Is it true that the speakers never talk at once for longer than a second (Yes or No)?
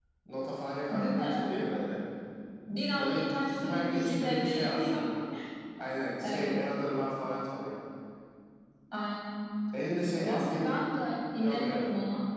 No